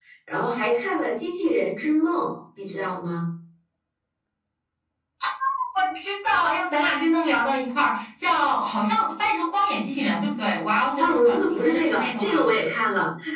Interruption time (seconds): 11.0 s

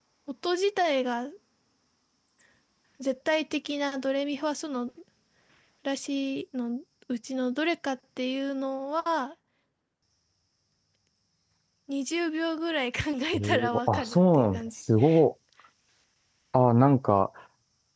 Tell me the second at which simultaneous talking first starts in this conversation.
13.3 s

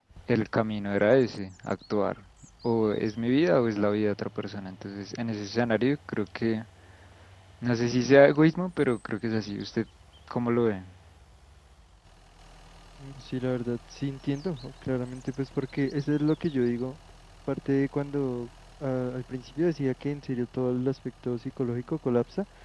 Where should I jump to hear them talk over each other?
none

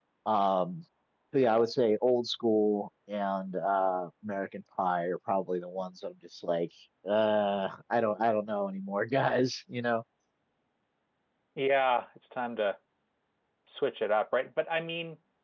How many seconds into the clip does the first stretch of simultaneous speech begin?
none

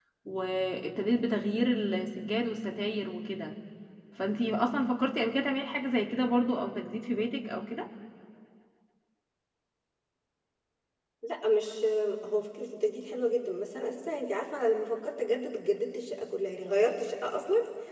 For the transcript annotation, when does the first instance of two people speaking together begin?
none

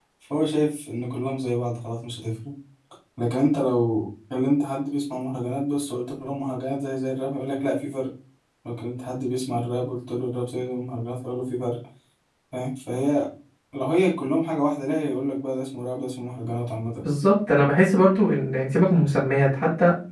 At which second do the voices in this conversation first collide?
none

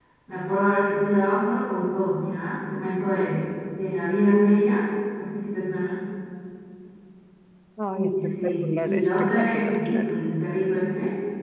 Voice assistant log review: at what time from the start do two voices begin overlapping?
7.9 s

